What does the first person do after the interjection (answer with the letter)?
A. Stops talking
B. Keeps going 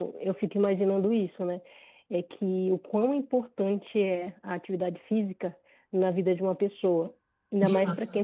B